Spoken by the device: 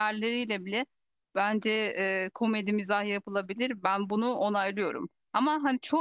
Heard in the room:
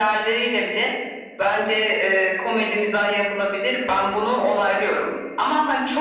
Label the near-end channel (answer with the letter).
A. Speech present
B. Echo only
B